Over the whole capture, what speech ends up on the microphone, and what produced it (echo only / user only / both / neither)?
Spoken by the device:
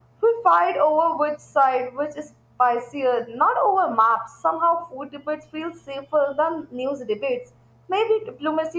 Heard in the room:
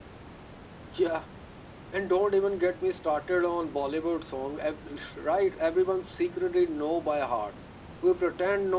user only